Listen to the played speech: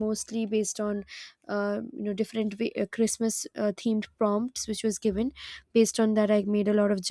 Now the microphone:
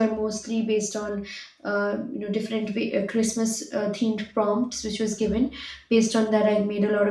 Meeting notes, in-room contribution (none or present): none